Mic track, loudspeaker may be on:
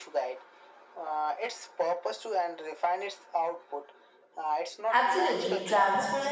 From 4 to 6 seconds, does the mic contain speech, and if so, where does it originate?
both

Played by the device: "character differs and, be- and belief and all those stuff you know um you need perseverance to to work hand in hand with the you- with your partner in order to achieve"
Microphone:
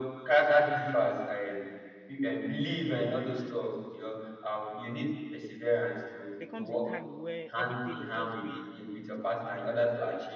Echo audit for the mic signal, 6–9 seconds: both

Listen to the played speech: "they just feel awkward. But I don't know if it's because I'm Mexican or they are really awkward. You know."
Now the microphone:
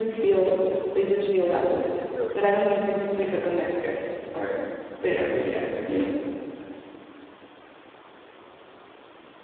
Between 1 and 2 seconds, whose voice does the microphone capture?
echo only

